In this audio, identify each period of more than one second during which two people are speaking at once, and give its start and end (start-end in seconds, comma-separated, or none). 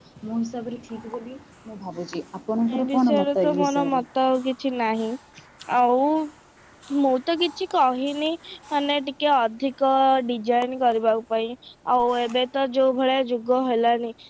2.8-4.0